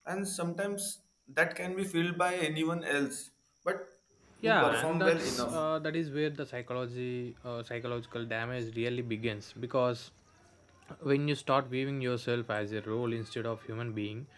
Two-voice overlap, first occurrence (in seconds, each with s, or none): 4.4 s